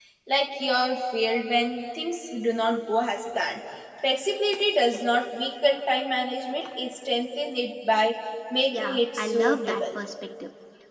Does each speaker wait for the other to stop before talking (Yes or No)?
No